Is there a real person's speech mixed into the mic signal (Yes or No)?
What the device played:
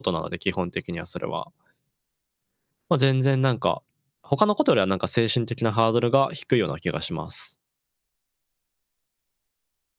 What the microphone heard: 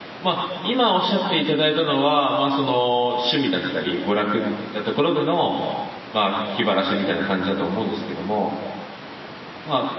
Yes